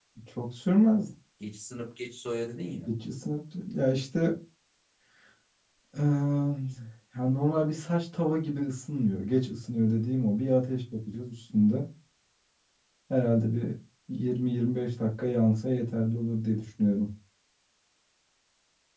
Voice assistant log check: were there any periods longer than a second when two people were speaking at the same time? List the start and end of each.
none

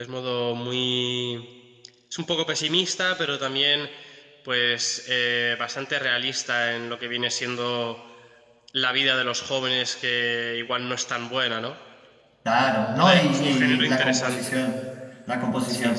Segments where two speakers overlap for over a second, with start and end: 12.9-14.6

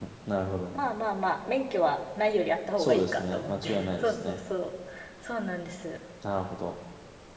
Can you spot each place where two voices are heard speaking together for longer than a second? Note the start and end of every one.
2.8-4.4

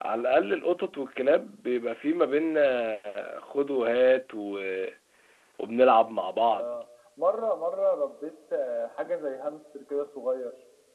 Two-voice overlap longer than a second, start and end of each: none

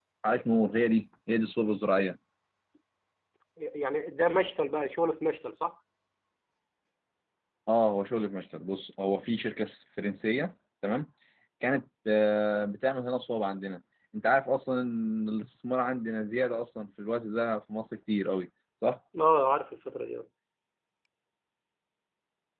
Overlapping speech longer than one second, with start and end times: none

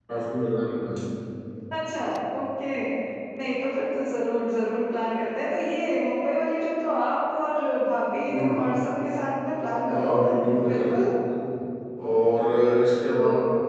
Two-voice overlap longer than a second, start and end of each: none

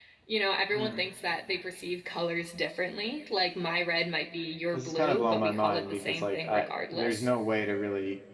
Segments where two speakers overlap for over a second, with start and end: 4.7-7.3

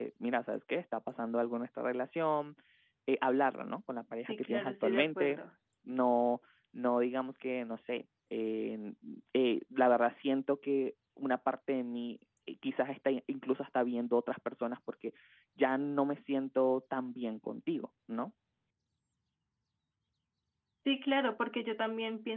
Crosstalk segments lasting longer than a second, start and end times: 4.2-5.4

